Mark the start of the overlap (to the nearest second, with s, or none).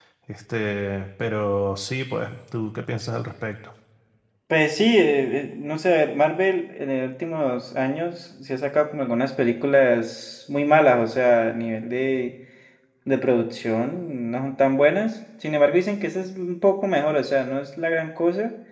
none